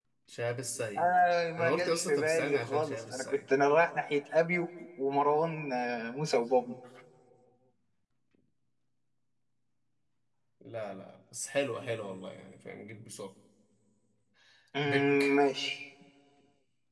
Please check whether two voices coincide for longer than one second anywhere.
Yes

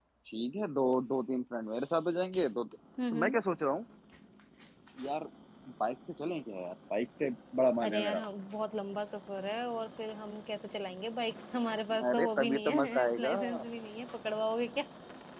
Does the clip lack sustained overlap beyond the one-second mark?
No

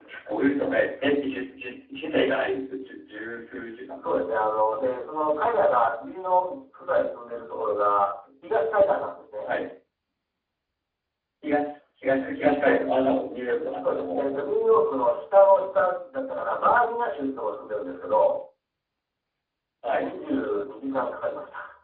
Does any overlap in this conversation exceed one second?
No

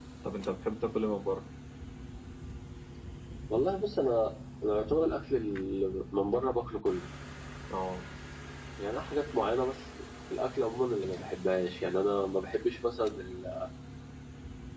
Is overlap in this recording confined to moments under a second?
Yes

